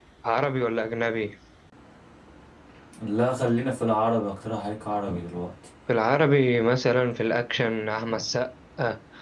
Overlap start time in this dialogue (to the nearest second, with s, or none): none